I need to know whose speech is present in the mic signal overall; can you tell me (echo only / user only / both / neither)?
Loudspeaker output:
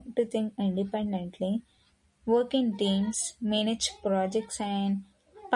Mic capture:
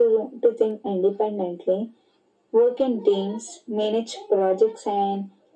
echo only